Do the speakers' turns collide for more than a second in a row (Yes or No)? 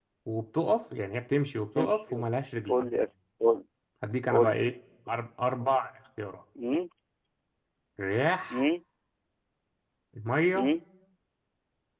No